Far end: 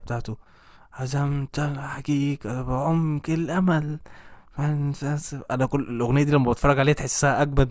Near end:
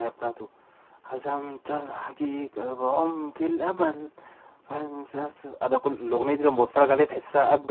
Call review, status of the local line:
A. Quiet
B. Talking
A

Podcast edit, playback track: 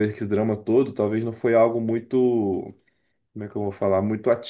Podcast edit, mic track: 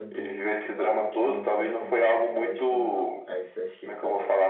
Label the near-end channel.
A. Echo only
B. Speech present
B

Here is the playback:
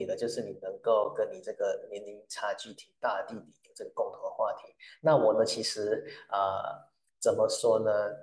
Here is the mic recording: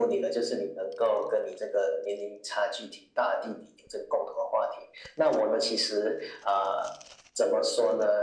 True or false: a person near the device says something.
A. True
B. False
B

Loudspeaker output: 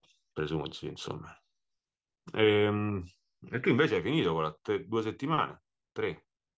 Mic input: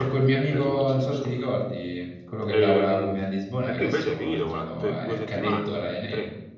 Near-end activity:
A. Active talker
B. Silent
A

